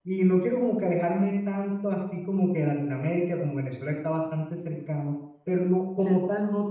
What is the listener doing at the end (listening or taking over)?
listening